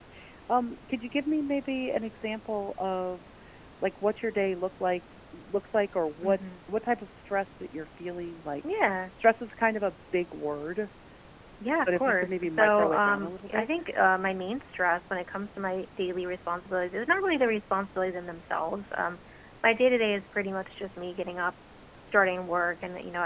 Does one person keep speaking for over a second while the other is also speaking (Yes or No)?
Yes